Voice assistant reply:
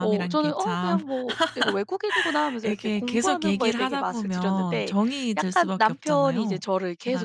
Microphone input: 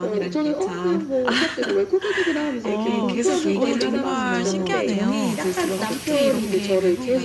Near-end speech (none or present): present